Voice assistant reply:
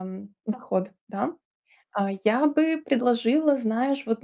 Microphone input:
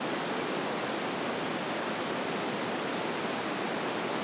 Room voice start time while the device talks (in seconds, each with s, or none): none